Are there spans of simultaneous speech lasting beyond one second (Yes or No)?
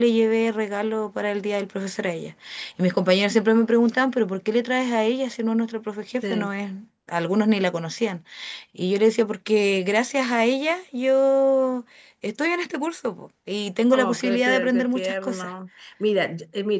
Yes